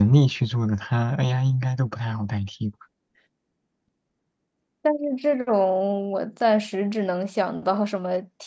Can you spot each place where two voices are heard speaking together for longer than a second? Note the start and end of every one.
none

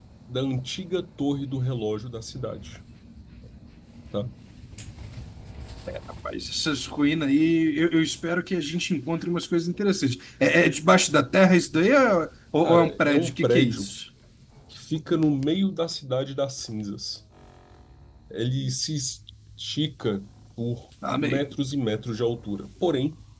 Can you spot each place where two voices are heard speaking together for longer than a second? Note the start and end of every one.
12.6-13.9

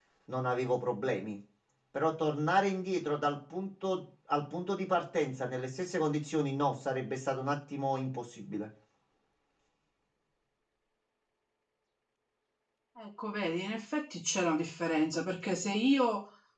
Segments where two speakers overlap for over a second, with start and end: none

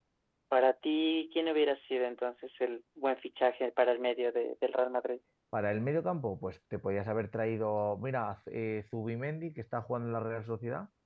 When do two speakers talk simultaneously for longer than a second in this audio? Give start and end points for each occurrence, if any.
none

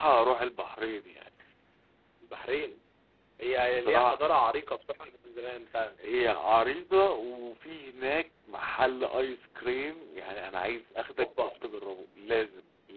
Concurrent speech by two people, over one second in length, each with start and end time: none

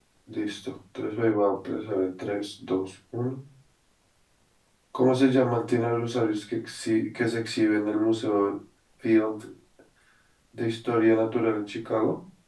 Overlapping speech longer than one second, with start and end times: none

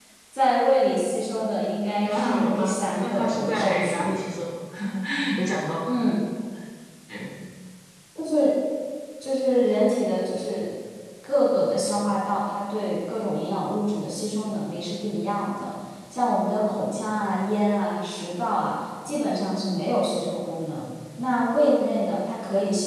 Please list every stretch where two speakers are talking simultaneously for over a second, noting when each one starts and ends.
2.0-4.1

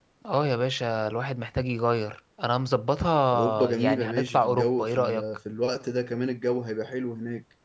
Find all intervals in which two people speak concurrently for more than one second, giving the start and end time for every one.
3.3-5.2

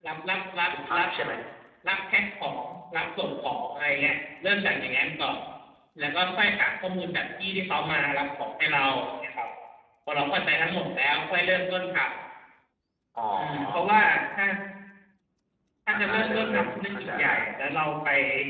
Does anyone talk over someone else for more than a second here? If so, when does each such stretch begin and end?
15.9-17.3

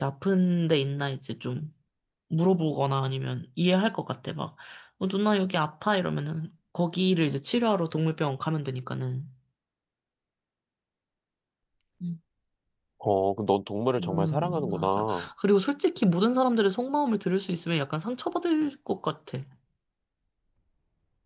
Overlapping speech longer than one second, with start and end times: 14.0-15.3

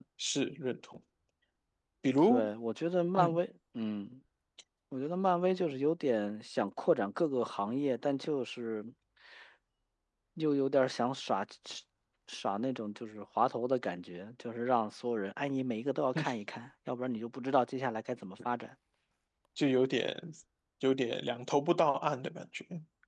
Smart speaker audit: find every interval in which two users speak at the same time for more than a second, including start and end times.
none

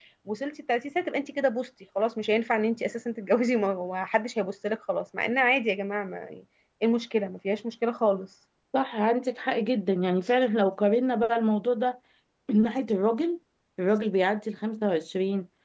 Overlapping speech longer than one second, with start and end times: none

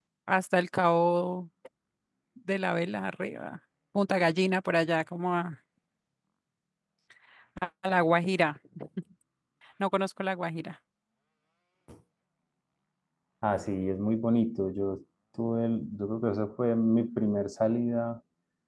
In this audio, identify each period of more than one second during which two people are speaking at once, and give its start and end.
none

